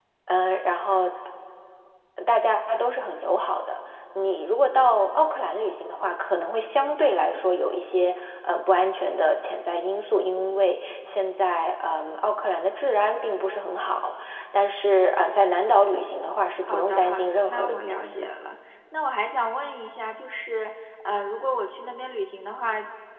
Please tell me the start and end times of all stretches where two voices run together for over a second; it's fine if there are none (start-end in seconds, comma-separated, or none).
16.7-18.2